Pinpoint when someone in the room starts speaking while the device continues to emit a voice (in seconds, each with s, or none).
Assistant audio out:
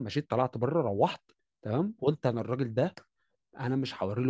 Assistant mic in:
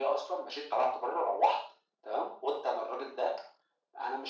none